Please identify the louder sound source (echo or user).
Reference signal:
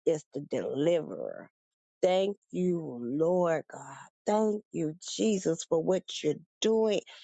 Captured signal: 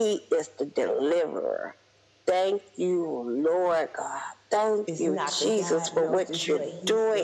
echo